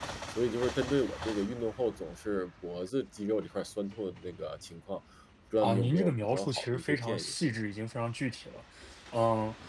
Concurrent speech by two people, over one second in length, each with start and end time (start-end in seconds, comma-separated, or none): 5.6-7.5